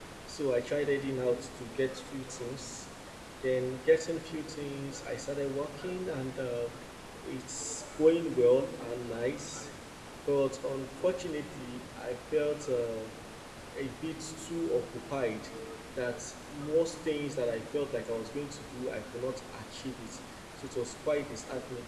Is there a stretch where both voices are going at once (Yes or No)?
No